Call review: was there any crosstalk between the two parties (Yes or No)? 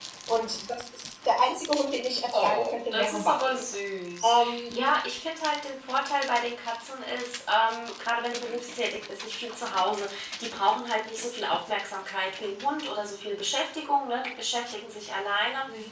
Yes